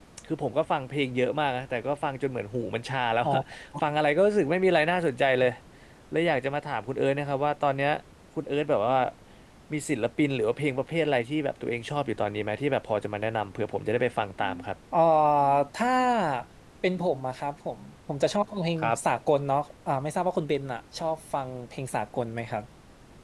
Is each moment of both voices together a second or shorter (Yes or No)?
Yes